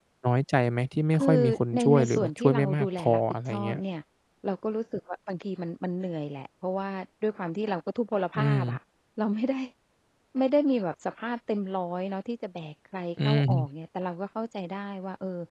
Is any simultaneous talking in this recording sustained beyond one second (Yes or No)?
Yes